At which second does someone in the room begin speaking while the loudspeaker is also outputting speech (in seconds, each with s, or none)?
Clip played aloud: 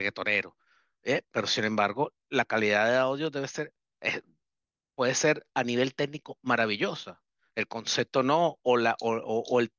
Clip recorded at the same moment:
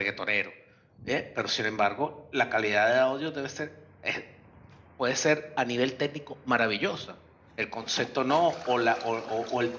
none